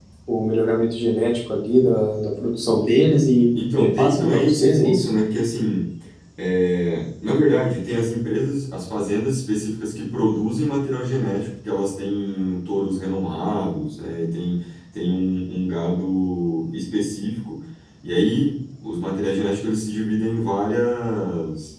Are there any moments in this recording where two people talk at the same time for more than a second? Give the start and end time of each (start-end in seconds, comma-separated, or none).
3.8-5.0